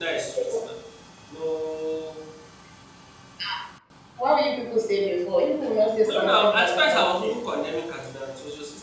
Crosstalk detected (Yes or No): Yes